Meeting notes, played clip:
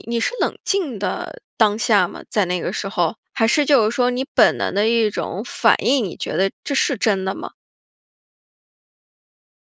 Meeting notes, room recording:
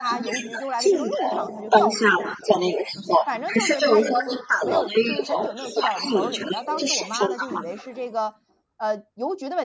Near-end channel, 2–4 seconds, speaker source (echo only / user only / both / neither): both